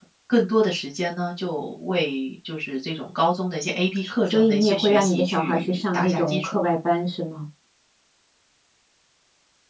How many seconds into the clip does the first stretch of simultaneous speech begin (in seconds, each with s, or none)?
4.3 s